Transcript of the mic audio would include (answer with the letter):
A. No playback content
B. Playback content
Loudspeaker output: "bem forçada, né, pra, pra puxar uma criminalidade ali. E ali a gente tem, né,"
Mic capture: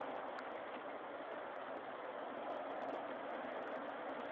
A